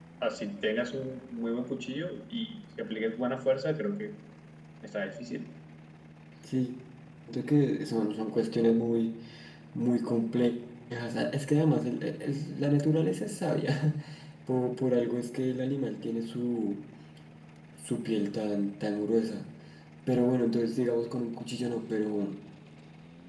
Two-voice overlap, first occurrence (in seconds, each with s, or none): none